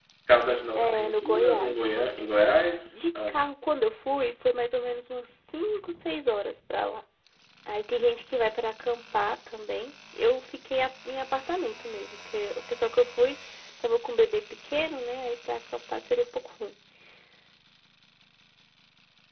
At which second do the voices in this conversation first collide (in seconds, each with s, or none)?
0.8 s